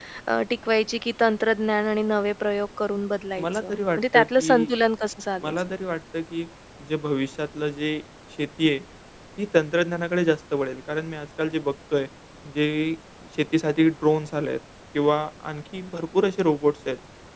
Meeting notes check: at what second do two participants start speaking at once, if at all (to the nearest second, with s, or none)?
3 s